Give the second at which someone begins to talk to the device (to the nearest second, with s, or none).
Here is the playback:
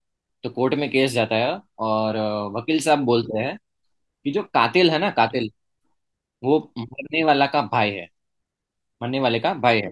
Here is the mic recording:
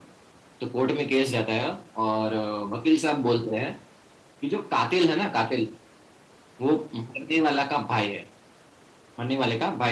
none